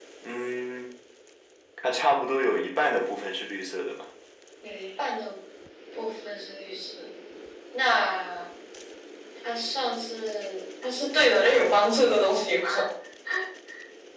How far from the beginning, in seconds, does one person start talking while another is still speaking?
none

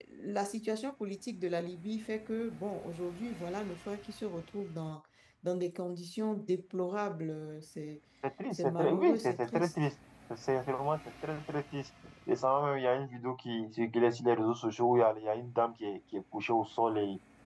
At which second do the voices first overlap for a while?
9 s

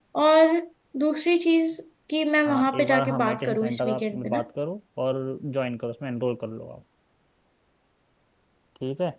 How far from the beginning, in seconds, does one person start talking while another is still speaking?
2 s

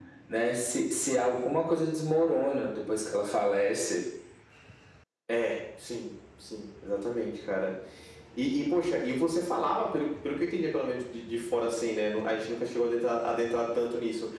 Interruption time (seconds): none

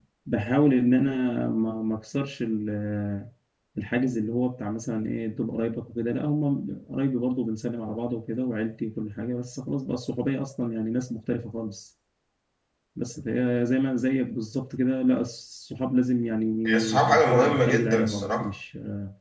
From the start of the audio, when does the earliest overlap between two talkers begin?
17 s

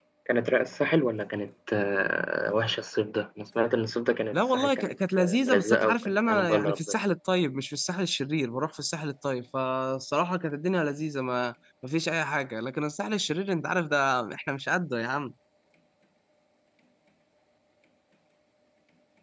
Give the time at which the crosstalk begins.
4 s

